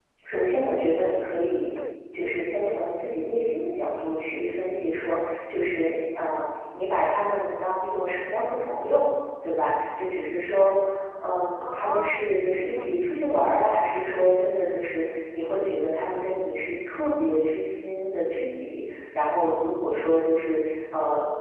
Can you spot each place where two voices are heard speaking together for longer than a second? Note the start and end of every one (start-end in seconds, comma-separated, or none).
11.6-12.9